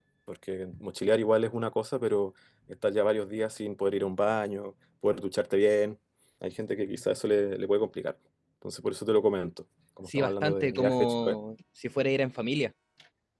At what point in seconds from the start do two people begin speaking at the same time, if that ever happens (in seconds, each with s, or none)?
10.1 s